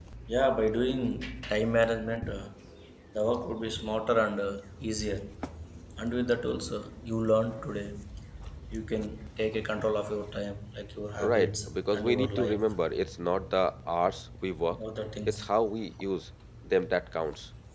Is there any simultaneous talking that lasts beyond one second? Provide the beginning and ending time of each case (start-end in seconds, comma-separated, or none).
11.2-12.7